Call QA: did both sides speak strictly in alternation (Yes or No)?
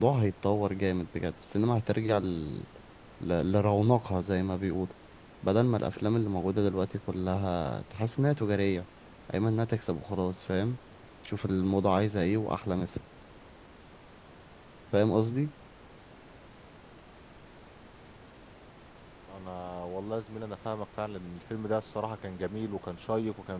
Yes